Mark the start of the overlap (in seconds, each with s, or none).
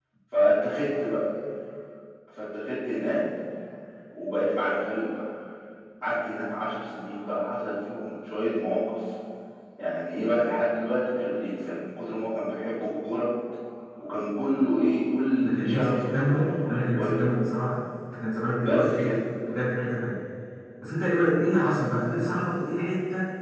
15.4 s